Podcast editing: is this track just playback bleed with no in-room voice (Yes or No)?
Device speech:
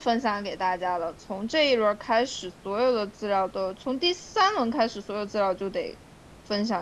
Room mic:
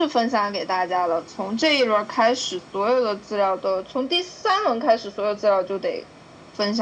Yes